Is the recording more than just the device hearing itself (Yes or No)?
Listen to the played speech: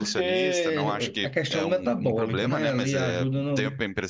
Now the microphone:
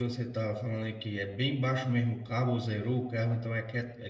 Yes